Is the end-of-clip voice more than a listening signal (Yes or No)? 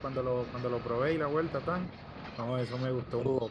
Yes